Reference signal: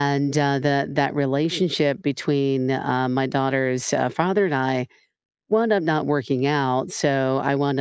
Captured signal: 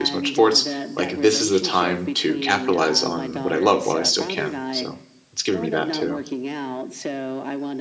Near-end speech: present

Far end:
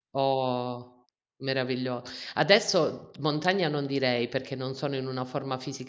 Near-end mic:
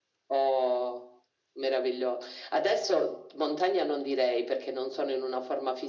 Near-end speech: none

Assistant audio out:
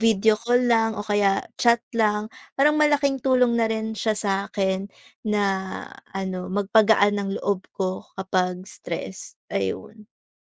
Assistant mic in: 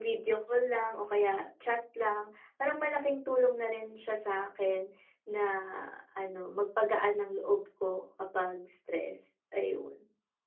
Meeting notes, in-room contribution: none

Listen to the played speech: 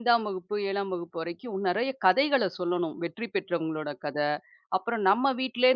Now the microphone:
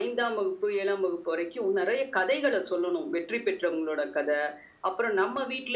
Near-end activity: none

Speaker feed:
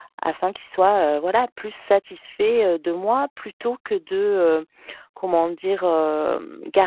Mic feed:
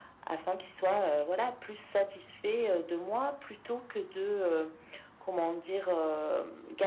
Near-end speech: none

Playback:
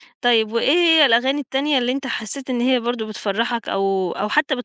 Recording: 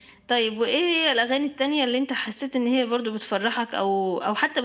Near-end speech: none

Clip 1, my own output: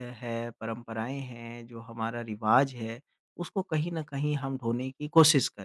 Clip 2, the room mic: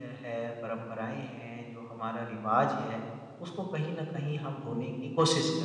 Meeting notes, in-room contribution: none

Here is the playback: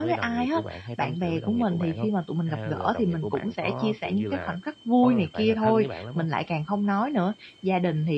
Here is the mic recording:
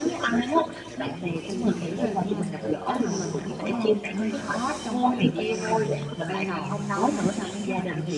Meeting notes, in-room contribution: present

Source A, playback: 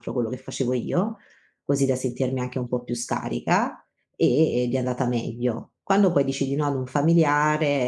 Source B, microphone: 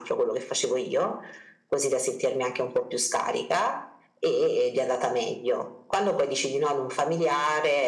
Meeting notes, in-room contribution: none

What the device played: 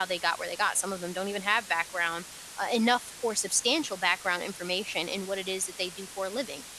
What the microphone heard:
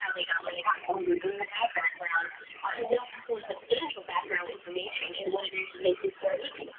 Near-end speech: none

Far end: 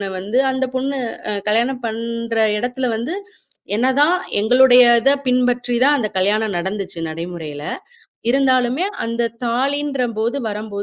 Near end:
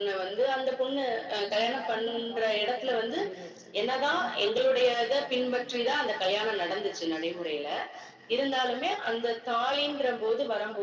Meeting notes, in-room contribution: present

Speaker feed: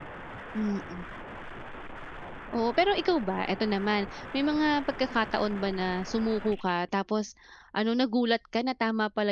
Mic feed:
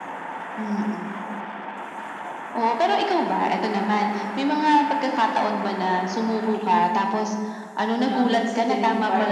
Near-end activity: present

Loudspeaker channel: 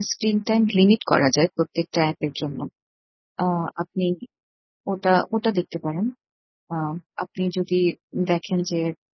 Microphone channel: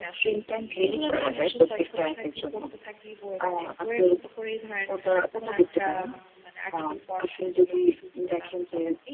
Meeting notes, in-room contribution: present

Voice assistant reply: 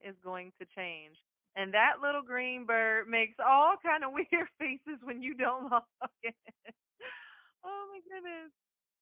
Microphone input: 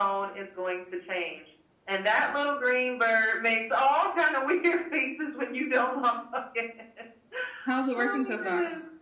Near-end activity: present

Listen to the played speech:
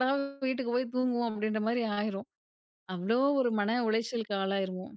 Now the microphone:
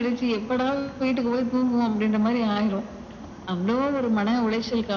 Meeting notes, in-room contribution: none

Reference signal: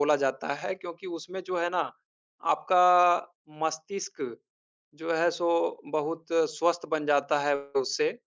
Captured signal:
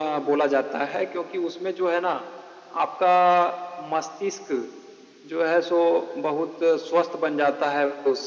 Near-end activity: none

